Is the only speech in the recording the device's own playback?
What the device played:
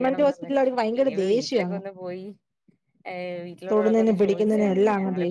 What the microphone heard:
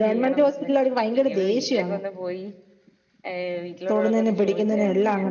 Yes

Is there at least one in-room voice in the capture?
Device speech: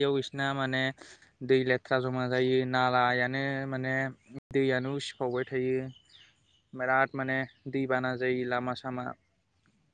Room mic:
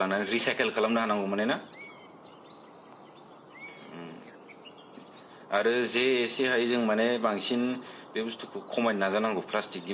Yes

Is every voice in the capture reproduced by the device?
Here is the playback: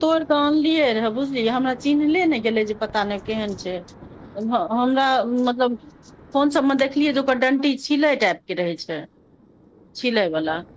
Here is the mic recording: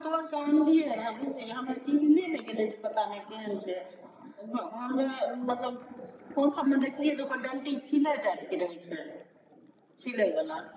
Yes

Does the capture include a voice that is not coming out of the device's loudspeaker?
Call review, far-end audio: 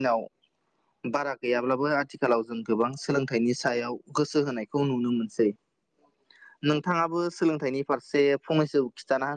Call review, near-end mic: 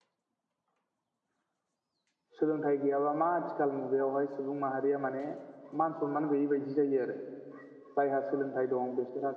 Yes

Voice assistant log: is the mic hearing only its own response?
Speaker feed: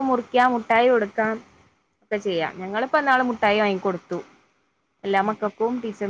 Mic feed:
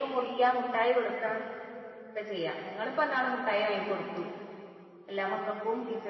Yes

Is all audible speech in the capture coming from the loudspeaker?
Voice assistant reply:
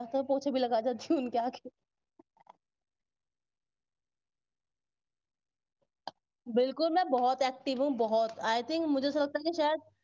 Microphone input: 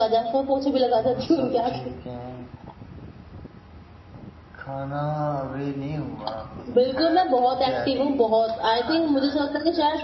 No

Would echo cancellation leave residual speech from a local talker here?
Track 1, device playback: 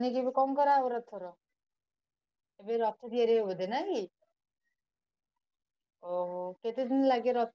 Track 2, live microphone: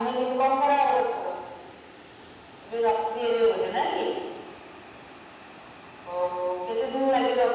No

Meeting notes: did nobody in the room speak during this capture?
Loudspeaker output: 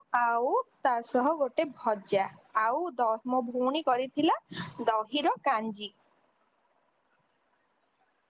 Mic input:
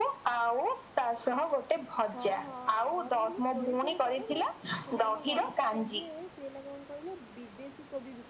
No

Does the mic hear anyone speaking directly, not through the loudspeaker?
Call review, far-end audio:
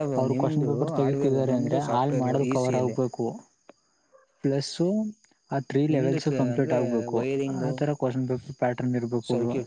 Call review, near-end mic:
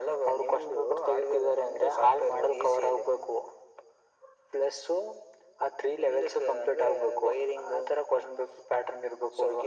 No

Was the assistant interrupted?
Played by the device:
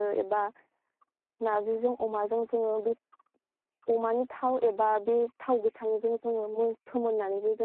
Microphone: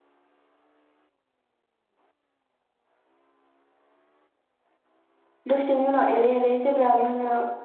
Yes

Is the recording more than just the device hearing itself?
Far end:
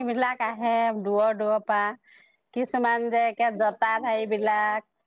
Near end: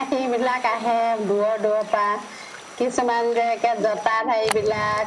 No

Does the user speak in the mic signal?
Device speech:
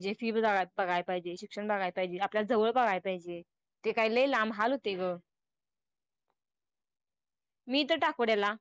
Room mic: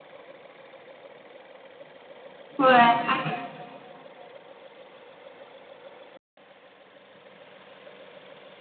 Yes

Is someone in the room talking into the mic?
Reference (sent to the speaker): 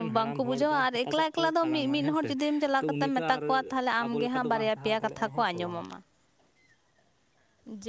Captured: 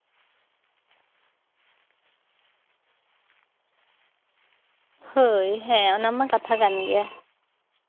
Yes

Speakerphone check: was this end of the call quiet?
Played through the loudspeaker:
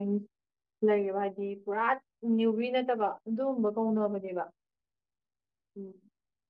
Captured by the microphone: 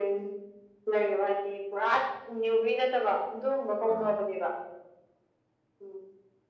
No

